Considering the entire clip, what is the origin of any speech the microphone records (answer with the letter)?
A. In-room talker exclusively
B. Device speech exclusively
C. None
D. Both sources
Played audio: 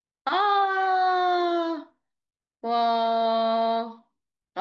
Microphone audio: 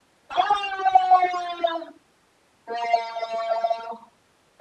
B